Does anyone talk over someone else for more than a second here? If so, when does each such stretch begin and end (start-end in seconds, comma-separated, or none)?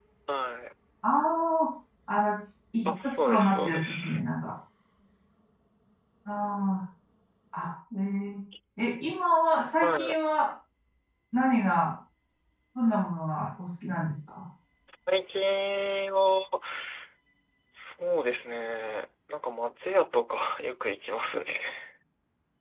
2.9-4.2